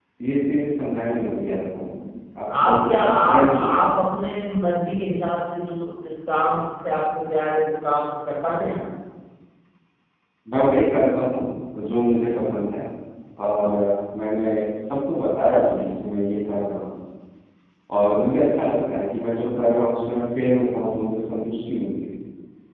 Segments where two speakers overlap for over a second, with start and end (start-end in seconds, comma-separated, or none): 2.6-4.0